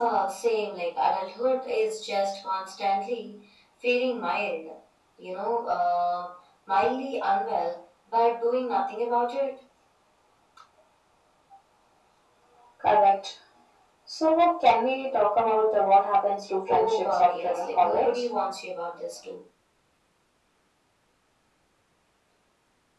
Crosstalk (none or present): present